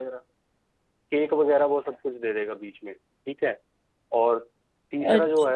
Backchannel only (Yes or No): Yes